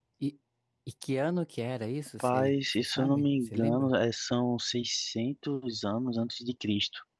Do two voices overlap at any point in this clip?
Yes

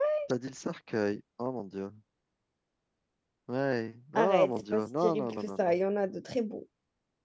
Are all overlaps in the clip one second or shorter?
No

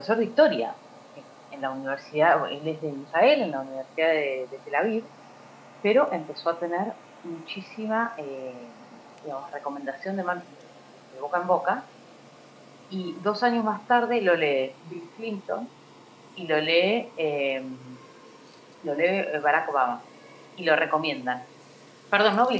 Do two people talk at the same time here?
No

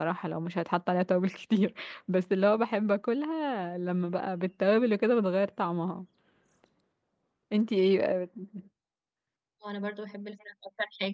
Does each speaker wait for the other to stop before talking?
Yes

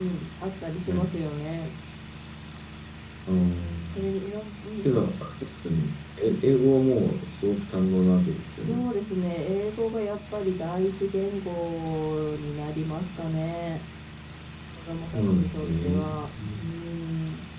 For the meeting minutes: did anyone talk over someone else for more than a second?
Yes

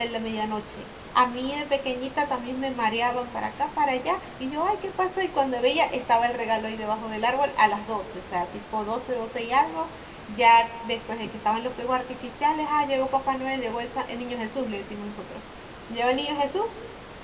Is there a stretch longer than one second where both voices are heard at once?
No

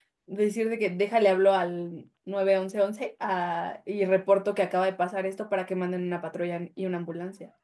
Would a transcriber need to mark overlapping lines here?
No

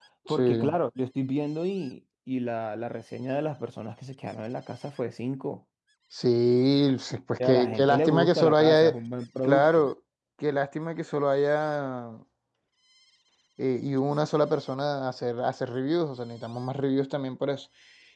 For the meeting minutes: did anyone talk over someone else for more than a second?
Yes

